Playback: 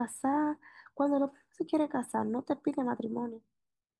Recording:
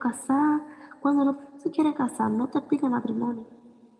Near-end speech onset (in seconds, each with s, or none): none